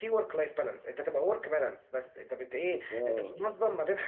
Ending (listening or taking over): listening